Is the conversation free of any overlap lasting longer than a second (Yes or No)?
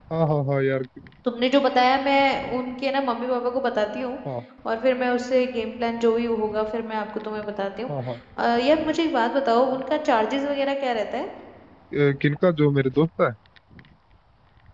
Yes